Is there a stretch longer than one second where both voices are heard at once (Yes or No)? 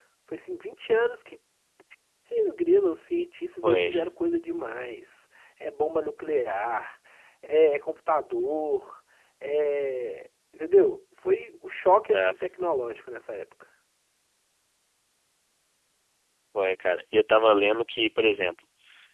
No